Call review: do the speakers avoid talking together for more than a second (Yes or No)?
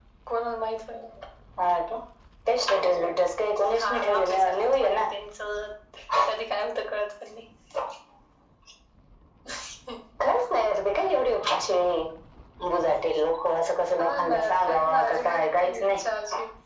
No